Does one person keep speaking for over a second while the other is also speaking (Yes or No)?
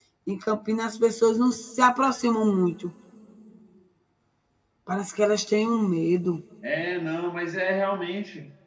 No